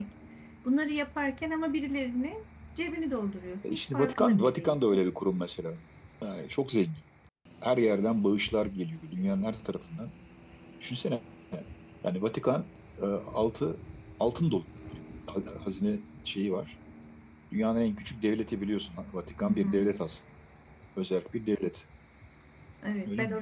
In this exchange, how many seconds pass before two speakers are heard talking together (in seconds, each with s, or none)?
3.6 s